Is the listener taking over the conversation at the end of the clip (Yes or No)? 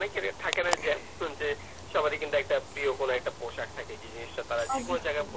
No